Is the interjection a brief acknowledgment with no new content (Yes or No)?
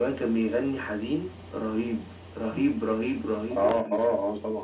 No